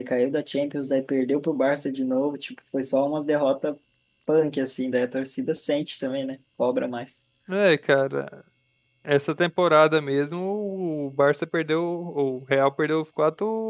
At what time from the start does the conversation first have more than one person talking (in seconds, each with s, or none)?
none